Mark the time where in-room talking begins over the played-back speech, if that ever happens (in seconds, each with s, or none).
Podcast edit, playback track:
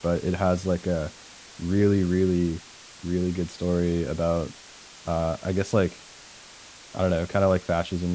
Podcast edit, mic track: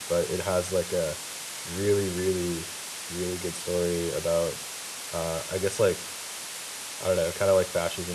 none